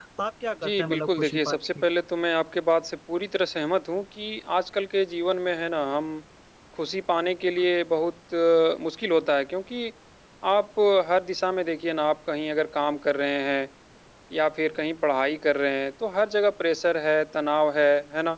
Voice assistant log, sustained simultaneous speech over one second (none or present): present